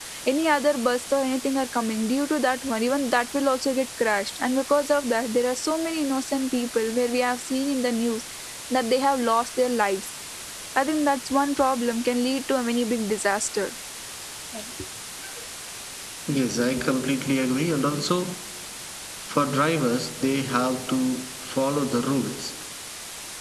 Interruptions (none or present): none